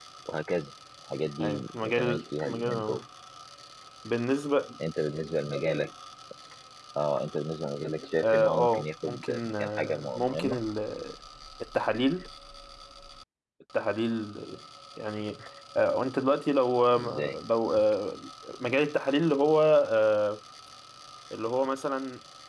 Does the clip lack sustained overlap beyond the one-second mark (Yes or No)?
No